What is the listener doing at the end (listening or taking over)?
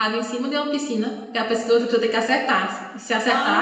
taking over